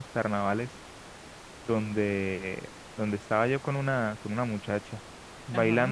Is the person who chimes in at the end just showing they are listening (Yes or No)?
Yes